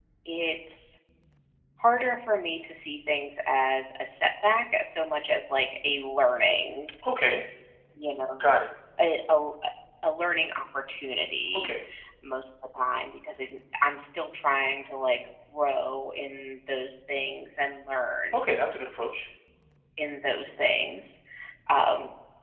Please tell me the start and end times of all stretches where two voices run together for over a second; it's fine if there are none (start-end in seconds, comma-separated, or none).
none